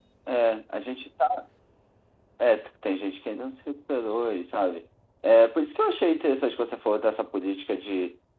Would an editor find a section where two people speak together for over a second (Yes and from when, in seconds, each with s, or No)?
No